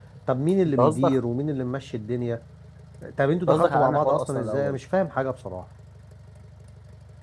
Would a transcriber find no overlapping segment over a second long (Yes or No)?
No